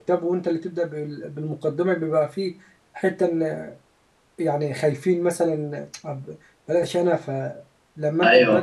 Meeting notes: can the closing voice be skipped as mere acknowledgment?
Yes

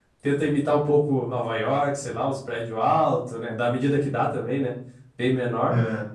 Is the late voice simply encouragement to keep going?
Yes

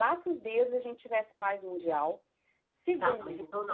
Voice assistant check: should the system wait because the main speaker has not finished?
No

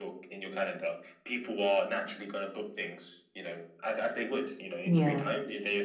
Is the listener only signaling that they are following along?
Yes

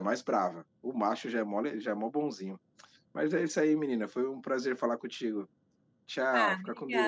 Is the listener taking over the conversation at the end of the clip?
Yes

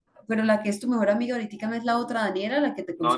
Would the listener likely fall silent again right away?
No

